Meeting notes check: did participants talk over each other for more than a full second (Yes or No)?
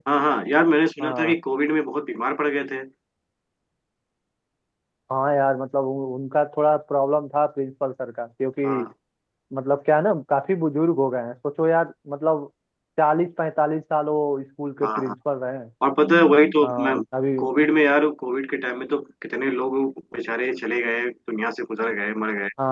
No